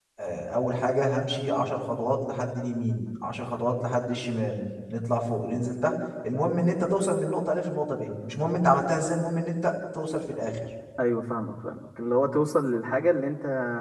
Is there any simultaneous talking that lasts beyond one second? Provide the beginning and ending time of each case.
none

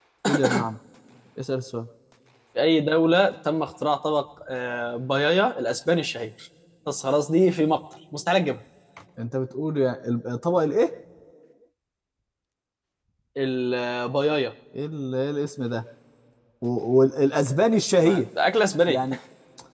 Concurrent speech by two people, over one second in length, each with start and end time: none

